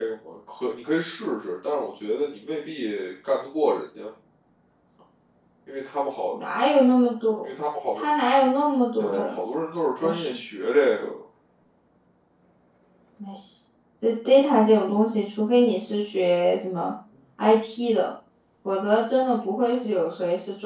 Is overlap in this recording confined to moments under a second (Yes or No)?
Yes